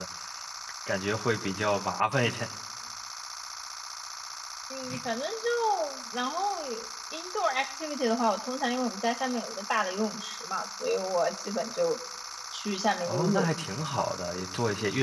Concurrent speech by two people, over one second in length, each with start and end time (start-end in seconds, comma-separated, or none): none